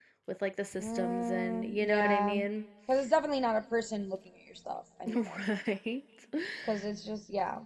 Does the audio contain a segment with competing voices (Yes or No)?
Yes